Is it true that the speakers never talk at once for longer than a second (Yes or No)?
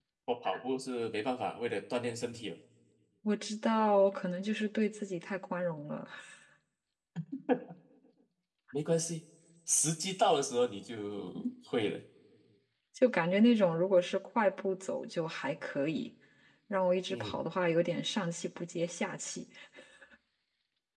Yes